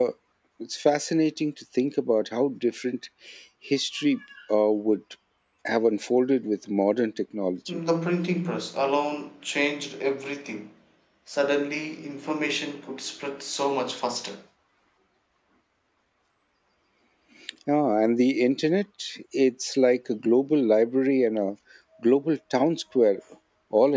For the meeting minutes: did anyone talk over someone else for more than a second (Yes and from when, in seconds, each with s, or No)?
No